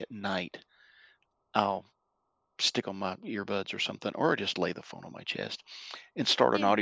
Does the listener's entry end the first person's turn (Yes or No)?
No